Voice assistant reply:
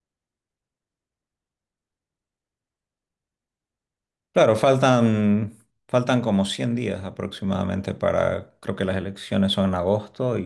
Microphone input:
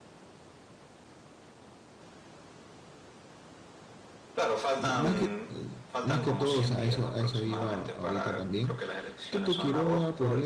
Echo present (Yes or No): Yes